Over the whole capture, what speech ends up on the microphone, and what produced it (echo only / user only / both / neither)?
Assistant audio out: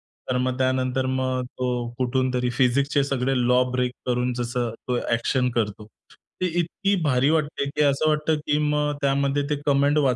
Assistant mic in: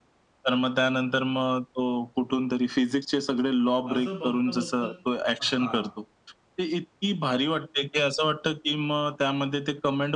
both